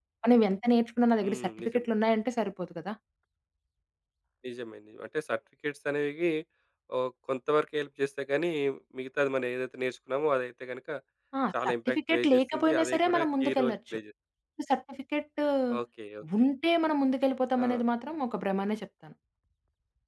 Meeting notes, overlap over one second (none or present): present